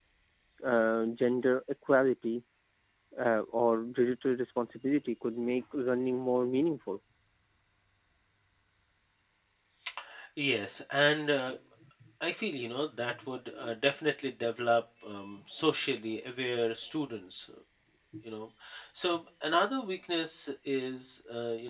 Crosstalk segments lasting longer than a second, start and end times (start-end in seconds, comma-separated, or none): none